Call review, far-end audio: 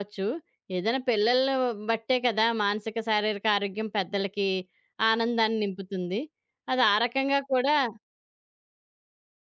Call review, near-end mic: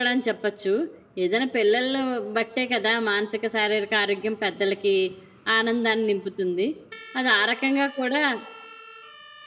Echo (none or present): present